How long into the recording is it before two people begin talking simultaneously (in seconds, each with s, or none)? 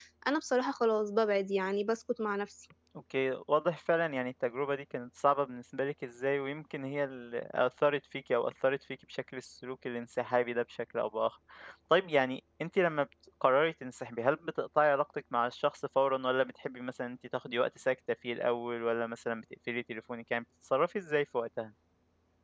none